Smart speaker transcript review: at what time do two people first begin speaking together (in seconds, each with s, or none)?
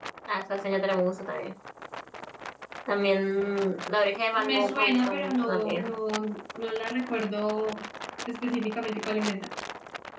4.3 s